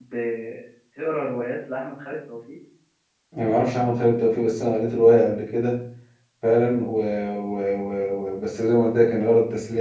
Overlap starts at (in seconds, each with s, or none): none